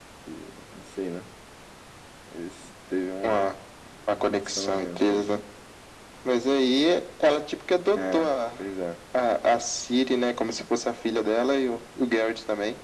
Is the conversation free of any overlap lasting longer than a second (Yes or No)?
No